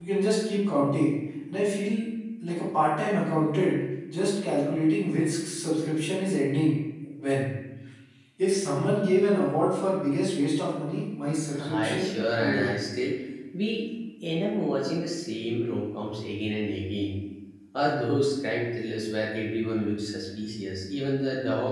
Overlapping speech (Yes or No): Yes